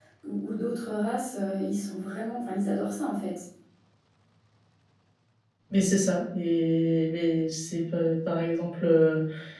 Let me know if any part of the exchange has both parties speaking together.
No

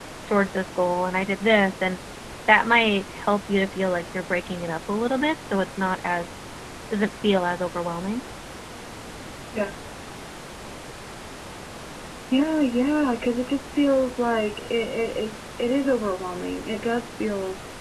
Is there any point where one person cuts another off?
No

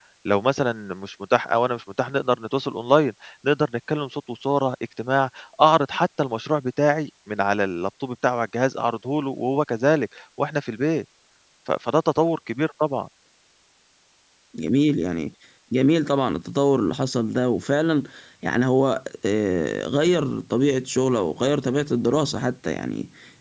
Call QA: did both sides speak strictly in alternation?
Yes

